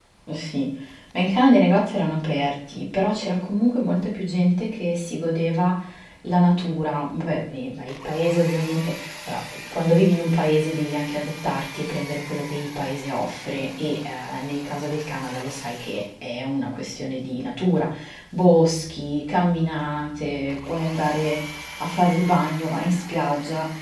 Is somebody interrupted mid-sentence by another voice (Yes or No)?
No